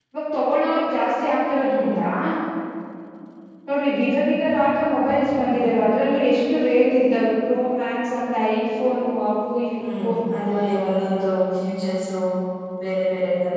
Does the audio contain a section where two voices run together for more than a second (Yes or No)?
No